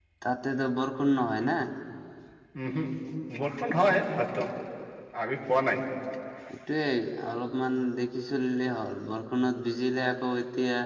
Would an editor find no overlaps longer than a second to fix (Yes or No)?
Yes